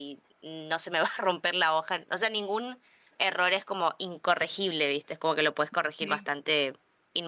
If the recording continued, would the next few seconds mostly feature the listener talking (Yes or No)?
No